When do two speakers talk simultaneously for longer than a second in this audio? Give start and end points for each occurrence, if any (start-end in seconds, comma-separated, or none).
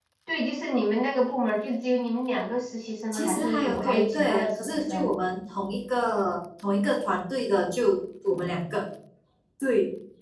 3.1-5.1